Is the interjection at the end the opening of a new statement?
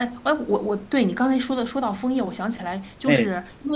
No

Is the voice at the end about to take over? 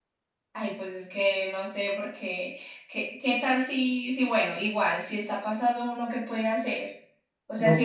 No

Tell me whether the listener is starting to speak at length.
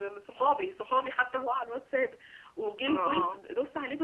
No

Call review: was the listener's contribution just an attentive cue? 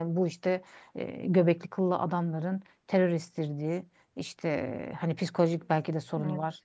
Yes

